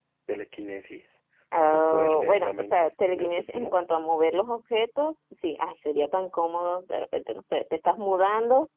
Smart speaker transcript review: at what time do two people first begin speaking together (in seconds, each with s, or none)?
1.7 s